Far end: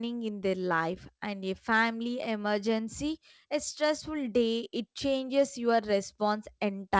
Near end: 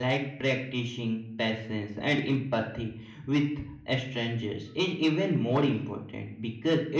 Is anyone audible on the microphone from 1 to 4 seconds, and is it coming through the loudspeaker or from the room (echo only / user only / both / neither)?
user only